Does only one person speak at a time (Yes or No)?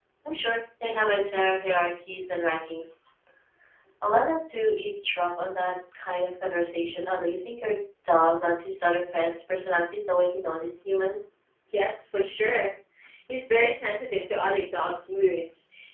Yes